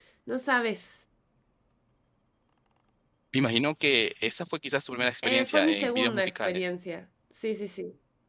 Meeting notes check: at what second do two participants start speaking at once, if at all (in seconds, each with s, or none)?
5.2 s